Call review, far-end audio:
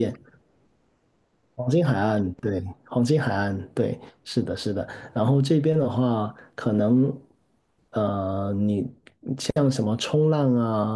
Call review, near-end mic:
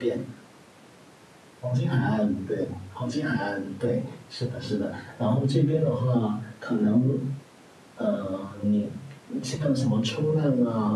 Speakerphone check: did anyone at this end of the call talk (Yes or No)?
No